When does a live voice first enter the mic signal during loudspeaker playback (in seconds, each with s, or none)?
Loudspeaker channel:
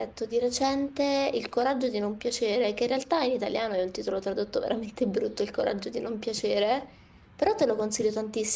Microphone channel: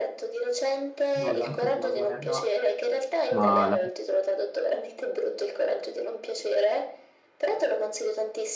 1.2 s